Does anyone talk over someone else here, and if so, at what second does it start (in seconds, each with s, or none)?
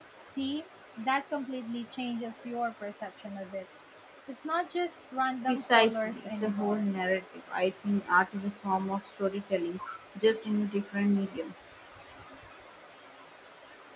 5.5 s